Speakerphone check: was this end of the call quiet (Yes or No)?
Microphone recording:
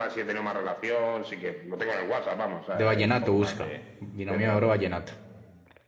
No